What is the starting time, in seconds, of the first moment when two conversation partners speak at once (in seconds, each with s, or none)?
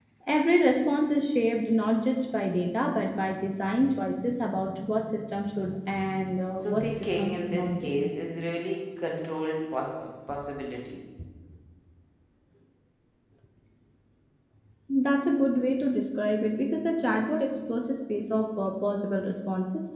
6.5 s